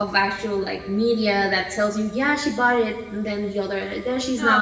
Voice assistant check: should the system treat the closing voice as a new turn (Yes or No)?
Yes